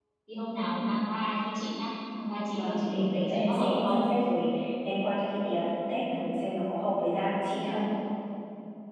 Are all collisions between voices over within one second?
No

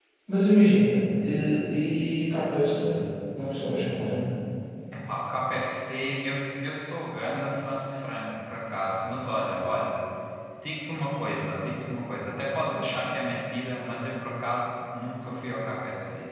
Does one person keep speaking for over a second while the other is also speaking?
No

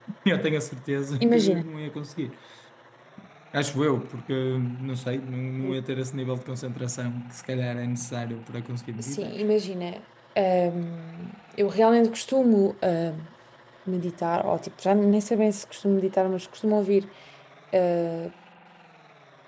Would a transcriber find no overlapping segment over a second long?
Yes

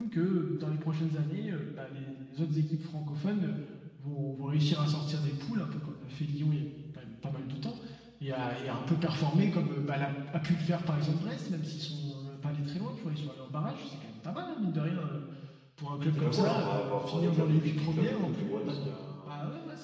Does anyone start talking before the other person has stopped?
Yes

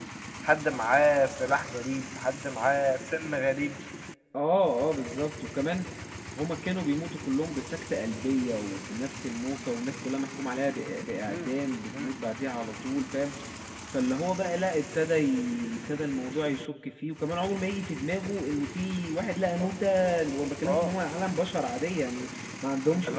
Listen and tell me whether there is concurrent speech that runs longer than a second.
No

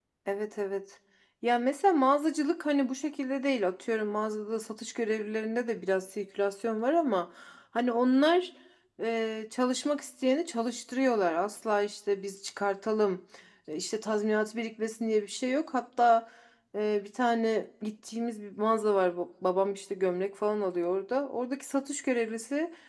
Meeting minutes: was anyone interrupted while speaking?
No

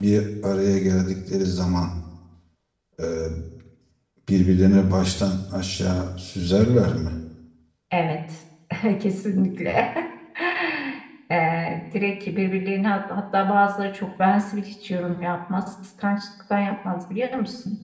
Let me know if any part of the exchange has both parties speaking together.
No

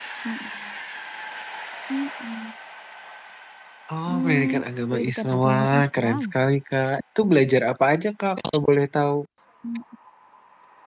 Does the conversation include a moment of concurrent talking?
Yes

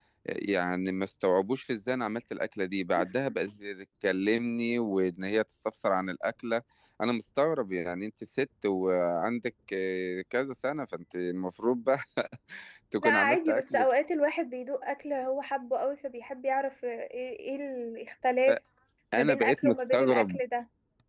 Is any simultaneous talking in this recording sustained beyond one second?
Yes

